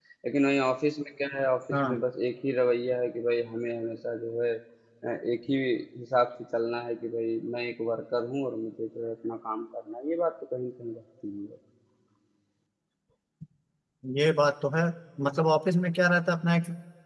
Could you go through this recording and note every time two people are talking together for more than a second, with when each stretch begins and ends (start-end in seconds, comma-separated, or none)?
none